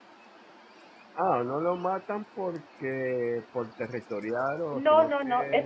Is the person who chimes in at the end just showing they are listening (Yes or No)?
No